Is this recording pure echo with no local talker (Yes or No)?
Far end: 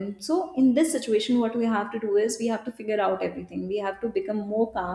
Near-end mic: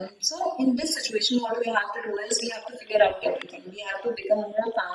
Yes